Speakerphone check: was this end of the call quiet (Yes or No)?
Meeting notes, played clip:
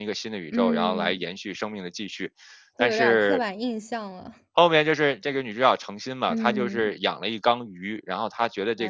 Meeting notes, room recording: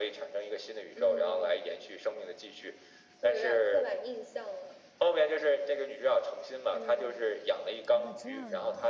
No